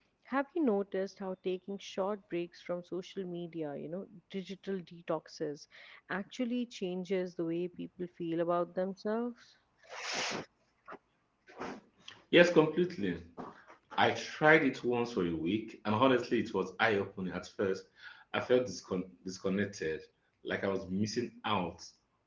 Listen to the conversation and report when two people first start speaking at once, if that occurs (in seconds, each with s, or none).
none